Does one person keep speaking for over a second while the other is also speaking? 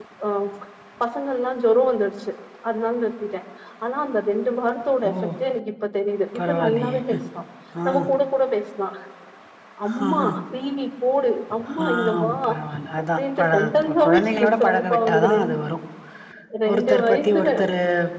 Yes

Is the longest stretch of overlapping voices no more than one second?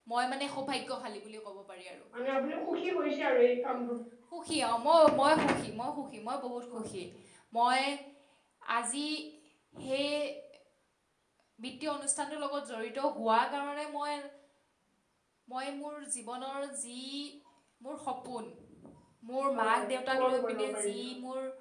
No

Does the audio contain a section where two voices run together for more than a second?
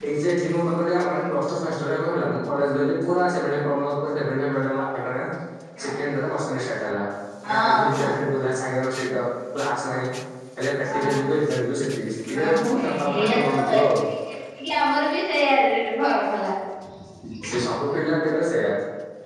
Yes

